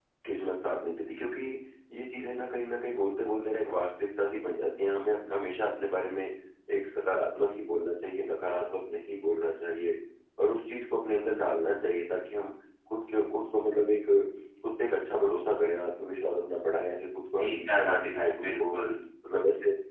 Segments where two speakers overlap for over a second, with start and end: 17.4-18.8

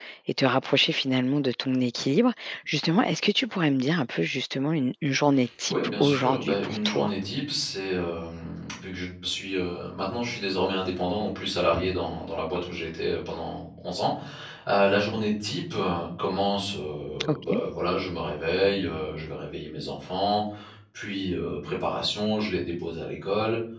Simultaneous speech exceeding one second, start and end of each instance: 5.7-7.1

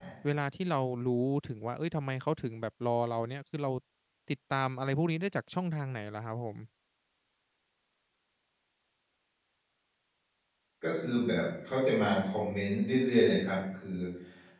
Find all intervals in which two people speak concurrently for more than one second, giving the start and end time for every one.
none

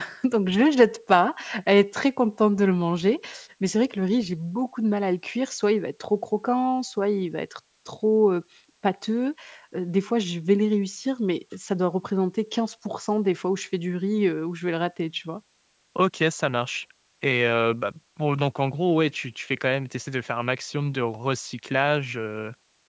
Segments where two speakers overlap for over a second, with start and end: none

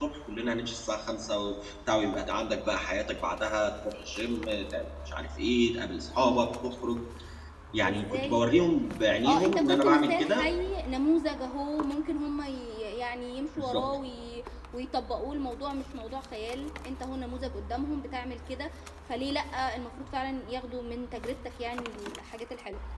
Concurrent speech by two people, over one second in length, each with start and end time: 9.2-10.5

